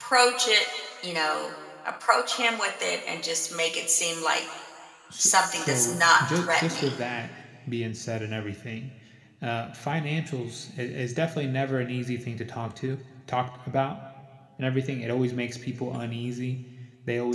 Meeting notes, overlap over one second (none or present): present